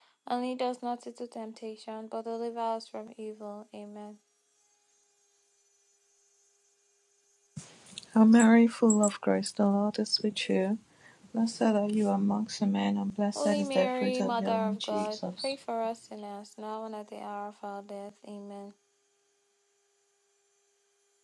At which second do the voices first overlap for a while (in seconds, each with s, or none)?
13.4 s